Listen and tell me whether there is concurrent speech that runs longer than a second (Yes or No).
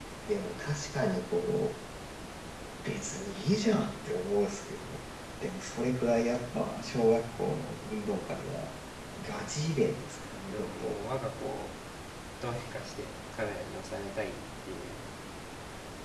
No